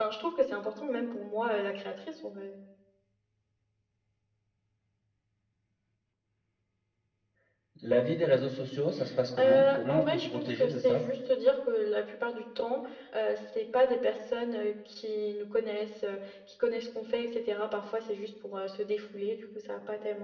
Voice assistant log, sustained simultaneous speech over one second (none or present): present